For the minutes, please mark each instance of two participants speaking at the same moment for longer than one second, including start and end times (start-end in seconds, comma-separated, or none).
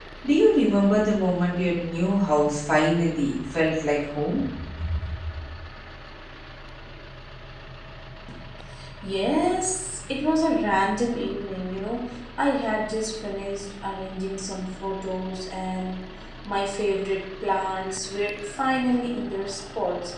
none